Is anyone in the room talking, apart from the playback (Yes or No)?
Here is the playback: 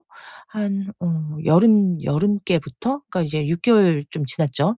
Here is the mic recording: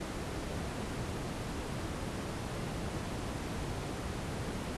No